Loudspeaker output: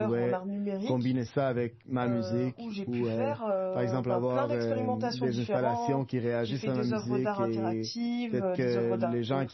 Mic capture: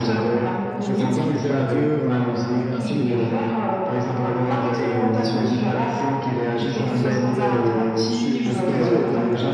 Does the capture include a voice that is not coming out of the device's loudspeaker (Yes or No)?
Yes